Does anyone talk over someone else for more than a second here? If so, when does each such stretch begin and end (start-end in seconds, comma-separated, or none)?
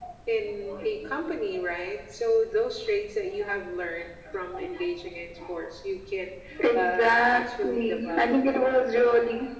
6.8-8.6